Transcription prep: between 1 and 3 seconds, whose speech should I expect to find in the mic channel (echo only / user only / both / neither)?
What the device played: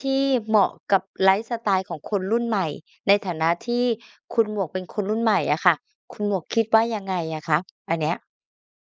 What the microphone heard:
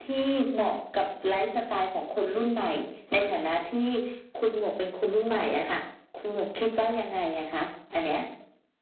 echo only